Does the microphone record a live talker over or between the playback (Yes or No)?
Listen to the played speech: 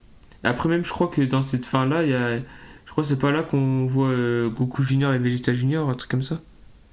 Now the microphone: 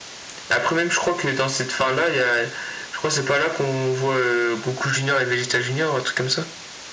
No